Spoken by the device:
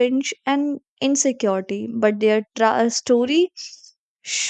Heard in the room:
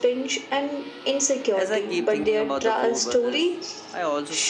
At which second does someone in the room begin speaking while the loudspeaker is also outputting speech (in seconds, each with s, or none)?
1.5 s